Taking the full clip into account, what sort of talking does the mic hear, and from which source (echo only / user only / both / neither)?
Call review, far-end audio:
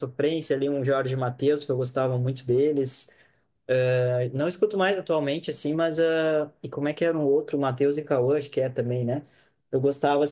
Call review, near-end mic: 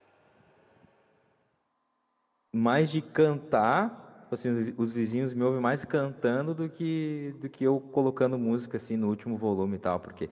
user only